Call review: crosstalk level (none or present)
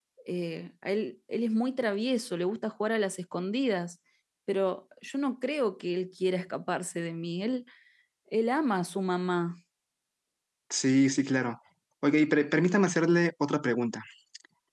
none